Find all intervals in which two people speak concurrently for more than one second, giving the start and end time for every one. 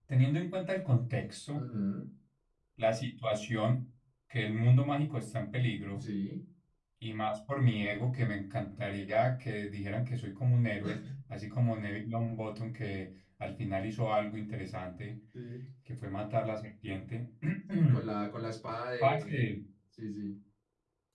none

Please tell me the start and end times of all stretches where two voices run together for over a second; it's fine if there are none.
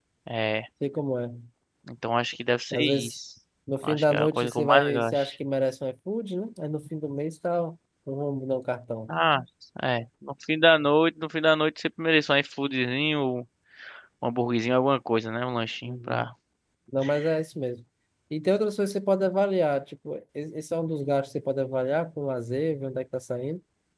3.8-5.3

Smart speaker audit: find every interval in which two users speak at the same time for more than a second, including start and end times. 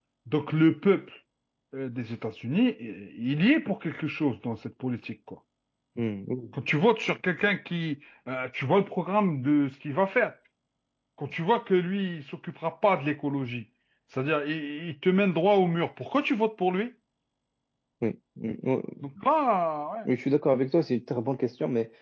none

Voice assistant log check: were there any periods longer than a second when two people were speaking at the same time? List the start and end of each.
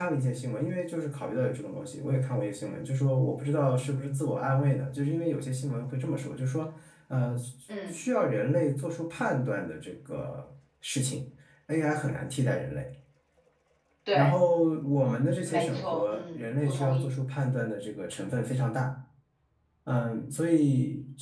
15.4-17.0

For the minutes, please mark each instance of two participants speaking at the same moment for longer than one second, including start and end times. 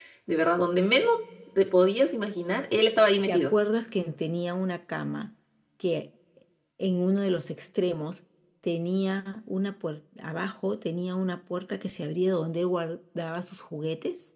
none

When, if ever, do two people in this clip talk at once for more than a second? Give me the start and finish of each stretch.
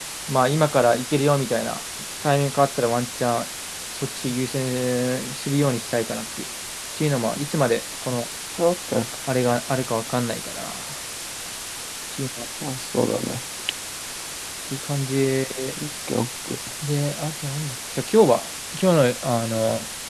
none

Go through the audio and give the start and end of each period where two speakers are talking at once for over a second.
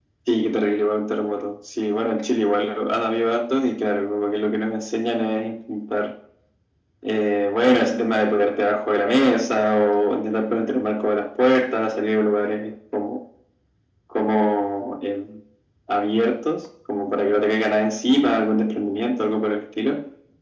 none

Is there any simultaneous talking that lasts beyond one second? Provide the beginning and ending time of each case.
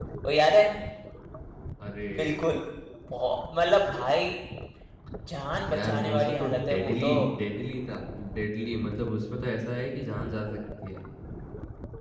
5.7-7.1

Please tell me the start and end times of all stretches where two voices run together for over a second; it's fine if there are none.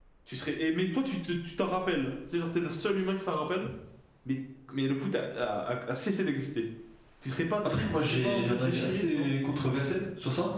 7.6-9.3

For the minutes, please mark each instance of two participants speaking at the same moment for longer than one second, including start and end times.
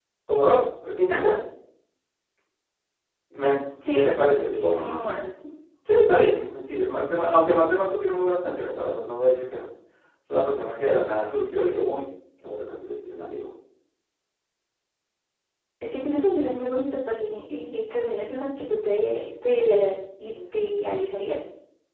3.9-5.1

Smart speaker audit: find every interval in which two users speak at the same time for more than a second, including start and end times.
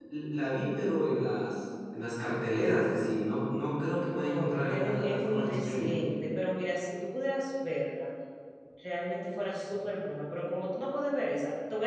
4.1-5.9

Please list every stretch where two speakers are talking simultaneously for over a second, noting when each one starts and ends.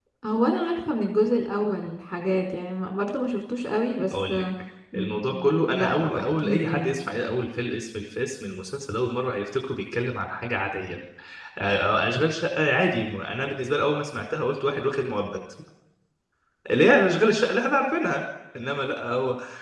4.9-7.1

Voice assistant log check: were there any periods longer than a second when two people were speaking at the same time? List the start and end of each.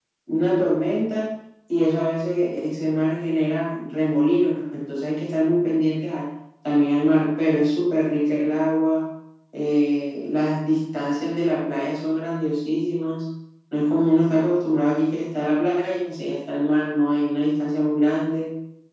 none

